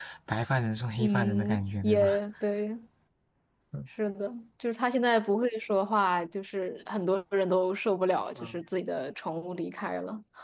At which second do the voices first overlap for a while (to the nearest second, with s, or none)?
1 s